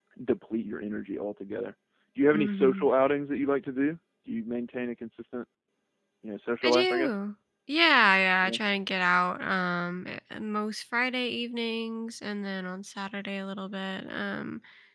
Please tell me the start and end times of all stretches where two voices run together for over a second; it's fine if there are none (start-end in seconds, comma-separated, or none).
none